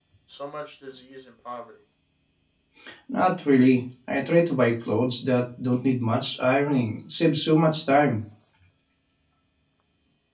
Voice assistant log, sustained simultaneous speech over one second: none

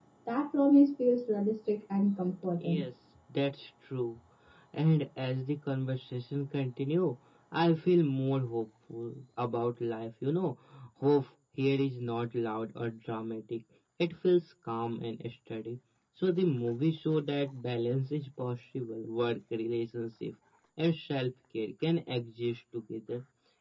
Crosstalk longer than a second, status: none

